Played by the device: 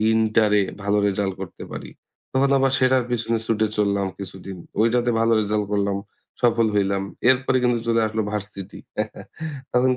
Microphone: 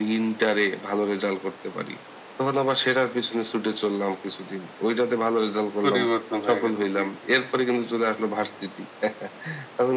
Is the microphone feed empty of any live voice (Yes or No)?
No